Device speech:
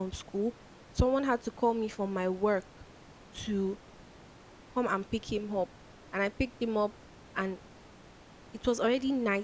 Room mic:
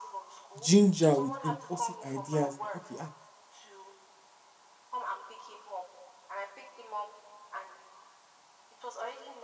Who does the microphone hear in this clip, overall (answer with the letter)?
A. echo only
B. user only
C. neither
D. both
D